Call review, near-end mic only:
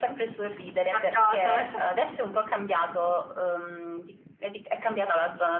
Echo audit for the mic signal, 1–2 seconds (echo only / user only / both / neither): both